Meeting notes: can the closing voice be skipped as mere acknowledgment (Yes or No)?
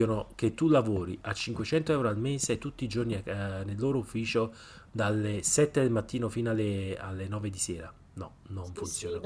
No